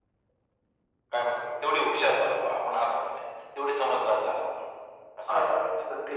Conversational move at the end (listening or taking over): taking over